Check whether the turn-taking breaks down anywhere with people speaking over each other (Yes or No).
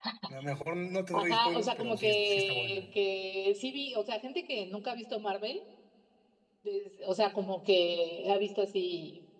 Yes